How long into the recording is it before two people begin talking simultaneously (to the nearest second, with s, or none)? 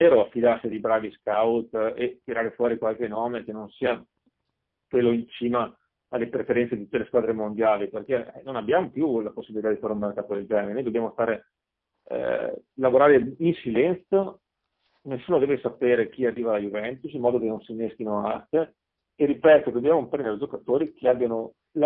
none